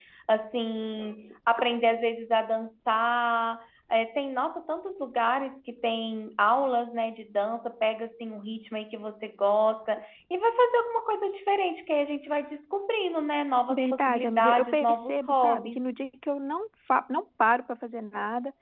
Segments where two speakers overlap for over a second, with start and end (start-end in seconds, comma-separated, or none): 13.7-15.8